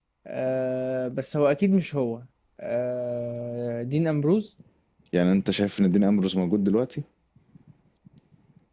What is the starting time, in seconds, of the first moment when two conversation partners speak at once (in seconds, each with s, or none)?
none